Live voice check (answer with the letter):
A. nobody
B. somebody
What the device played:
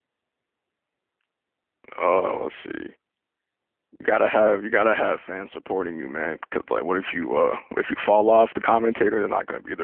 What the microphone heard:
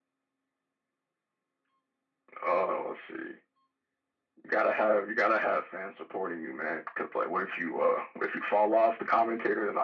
A